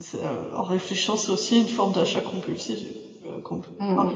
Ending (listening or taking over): taking over